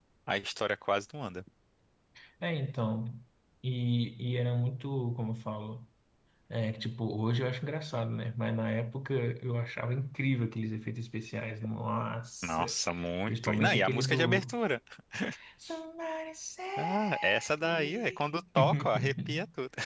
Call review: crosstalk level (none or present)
present